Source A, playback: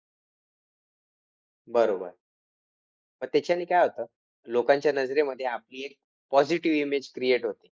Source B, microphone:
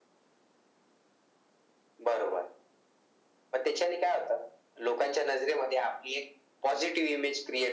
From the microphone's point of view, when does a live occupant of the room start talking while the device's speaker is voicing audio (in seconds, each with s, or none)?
none